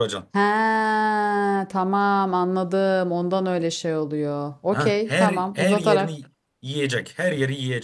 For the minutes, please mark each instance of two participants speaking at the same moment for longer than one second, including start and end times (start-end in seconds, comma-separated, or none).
4.7-6.1